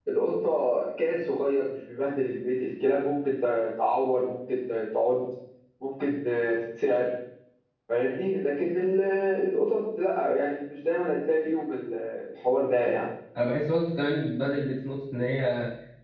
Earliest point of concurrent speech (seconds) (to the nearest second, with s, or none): none